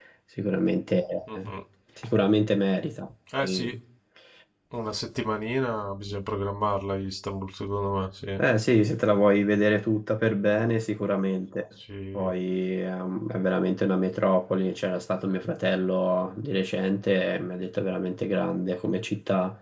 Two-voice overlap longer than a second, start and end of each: none

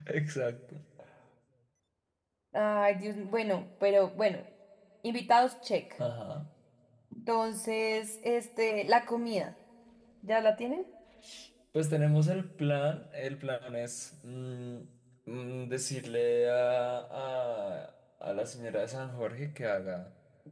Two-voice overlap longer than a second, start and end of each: none

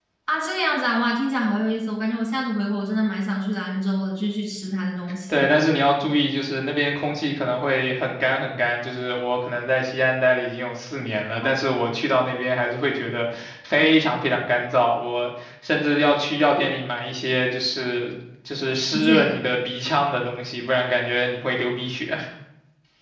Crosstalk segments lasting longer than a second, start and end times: none

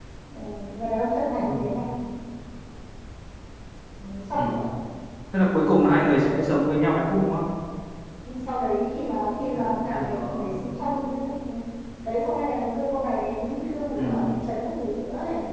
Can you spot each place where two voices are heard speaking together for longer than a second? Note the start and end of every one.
9.4-10.6

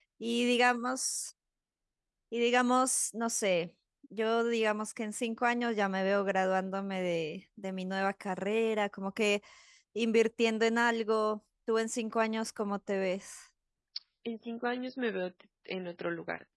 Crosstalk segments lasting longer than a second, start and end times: none

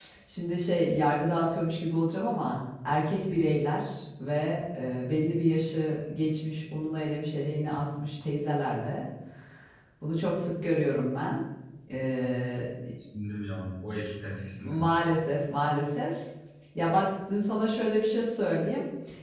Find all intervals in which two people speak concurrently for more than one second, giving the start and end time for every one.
none

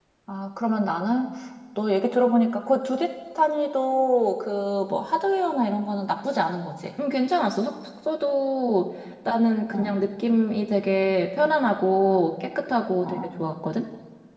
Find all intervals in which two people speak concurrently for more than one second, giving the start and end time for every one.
none

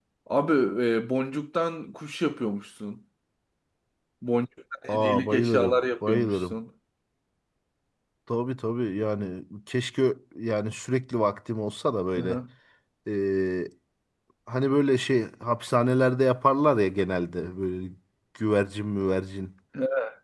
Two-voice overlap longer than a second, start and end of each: 4.9-6.6

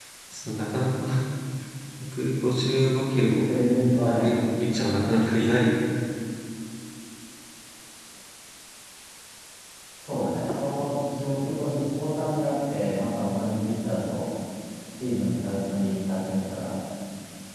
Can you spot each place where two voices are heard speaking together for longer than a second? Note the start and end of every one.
none

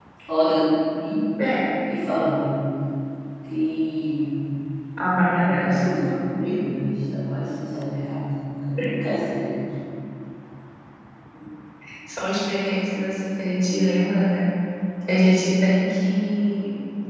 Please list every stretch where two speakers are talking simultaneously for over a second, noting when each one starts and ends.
5.3-6.6

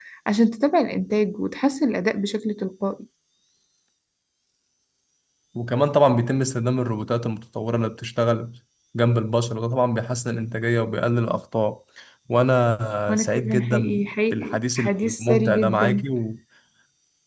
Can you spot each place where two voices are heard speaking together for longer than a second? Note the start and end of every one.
13.1-16.0

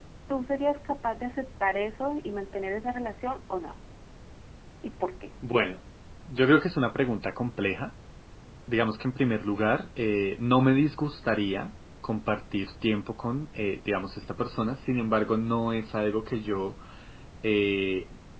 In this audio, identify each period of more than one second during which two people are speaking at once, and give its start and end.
none

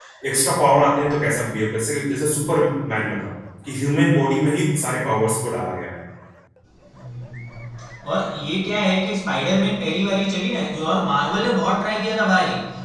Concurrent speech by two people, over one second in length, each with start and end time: none

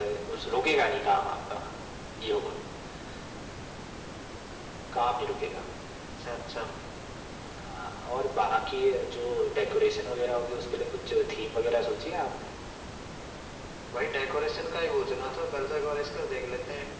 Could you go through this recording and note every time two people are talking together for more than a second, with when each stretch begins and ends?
none

